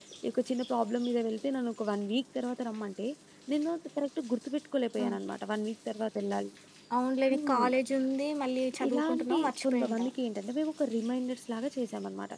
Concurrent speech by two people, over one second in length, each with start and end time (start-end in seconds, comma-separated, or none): 8.9-10.1